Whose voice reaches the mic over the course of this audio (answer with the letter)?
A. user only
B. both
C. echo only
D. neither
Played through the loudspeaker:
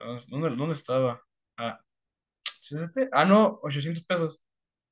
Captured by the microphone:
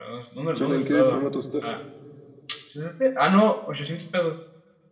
B